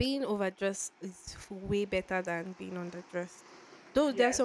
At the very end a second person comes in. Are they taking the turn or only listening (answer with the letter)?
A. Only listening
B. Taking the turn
A